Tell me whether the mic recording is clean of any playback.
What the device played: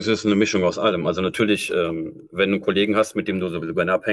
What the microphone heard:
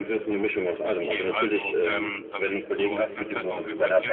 No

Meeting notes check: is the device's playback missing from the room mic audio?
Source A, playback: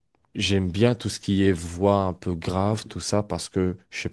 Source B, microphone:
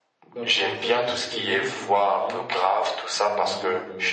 No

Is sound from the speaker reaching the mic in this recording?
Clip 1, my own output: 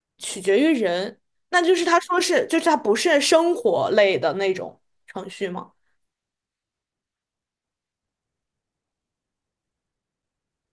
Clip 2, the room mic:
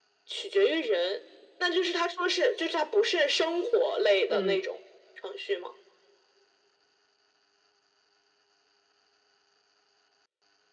Yes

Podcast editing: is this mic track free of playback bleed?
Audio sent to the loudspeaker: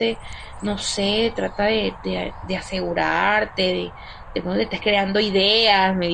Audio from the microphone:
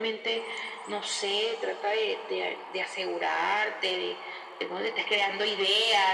No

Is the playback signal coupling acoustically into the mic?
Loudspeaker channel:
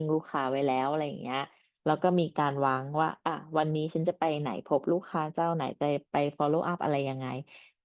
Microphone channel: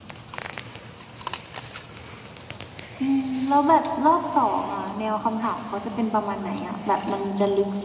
No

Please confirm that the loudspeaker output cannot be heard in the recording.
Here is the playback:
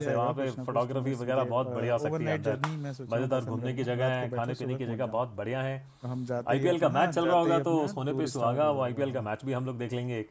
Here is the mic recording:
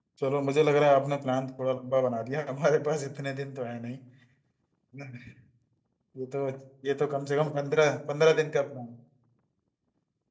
Yes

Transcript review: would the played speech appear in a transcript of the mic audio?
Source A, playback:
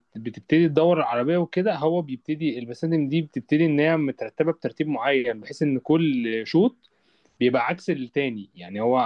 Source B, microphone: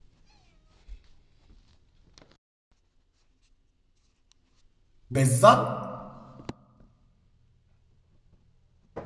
No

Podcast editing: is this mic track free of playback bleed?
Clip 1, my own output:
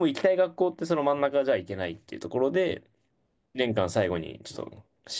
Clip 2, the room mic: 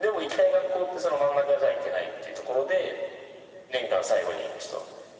No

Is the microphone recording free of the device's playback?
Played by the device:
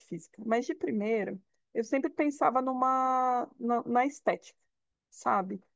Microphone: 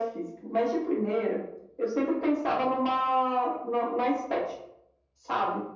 No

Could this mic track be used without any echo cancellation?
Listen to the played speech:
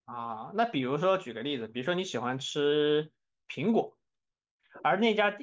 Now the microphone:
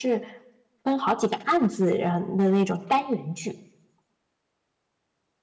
Yes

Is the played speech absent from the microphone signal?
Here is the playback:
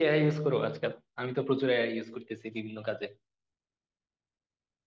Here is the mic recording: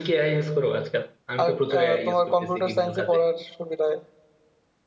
No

